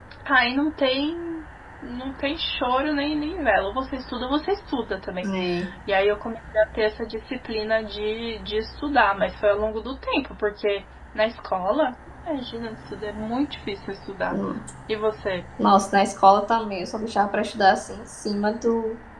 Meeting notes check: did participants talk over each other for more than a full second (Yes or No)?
No